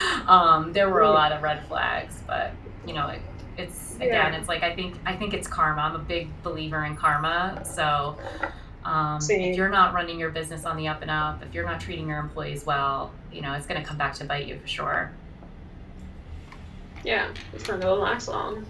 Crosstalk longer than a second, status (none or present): none